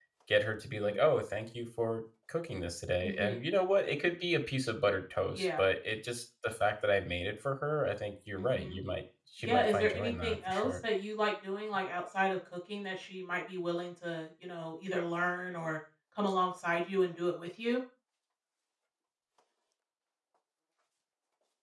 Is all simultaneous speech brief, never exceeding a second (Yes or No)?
No